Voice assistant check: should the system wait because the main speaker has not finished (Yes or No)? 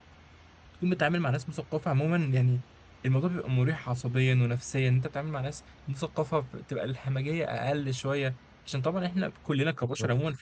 Yes